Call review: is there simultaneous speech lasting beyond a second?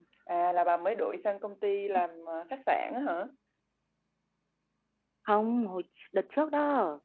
No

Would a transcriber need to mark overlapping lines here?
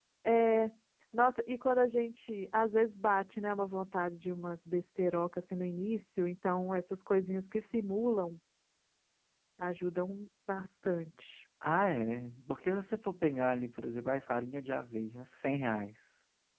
No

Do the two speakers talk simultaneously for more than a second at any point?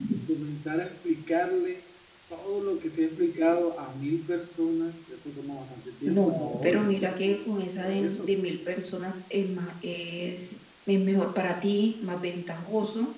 Yes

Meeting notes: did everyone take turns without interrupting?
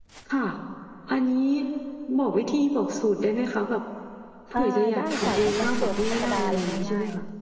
No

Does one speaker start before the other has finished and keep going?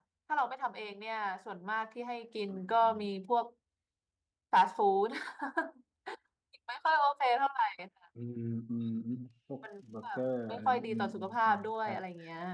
Yes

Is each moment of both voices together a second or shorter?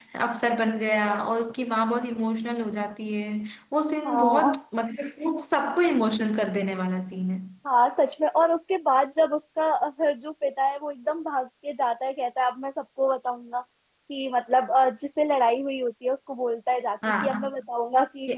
Yes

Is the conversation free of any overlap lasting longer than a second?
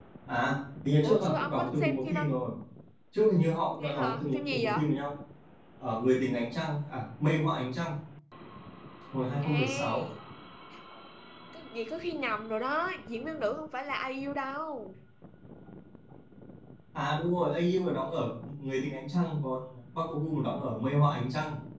No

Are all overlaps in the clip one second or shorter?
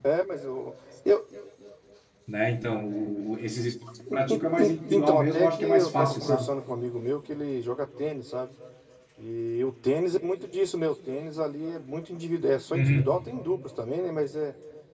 No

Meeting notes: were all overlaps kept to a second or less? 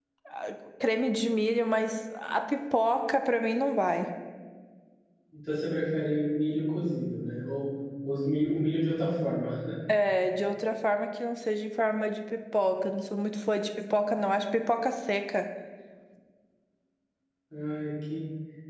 Yes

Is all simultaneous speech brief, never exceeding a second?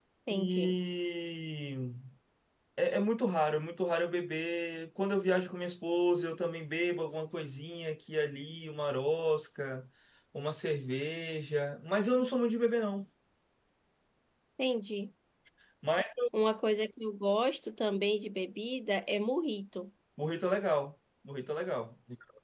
Yes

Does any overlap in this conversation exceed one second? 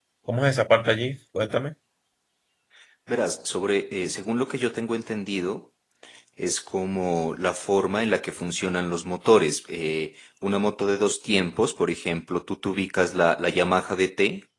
No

